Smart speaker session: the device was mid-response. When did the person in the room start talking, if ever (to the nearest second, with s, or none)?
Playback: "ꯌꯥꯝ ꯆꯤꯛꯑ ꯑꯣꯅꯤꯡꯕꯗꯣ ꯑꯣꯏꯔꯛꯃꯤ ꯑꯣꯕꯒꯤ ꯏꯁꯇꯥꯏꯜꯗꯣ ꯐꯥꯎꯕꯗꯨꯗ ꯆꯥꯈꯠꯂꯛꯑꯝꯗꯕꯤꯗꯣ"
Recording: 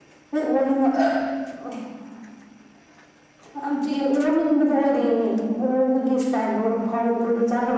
none